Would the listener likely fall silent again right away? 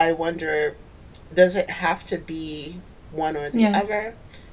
Yes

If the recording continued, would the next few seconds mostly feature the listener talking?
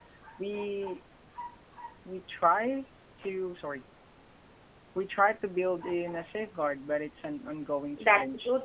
Yes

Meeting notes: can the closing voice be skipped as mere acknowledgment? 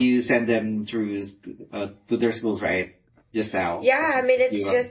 No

